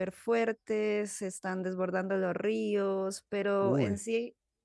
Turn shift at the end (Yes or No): No